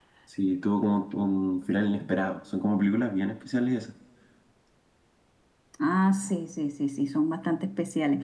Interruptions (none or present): none